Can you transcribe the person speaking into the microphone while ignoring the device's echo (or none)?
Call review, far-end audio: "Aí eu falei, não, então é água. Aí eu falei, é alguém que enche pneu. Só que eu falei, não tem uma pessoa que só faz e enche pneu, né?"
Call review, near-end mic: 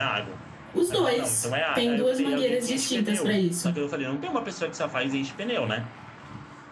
Os dois. Tem duas mangueiras distintas para isso.